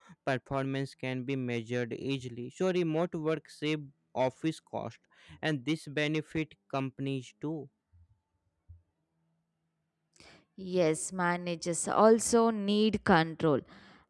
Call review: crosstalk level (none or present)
none